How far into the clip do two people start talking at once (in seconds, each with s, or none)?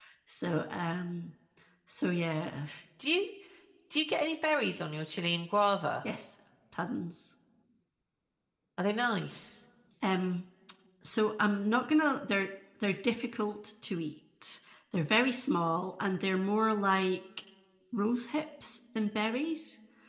none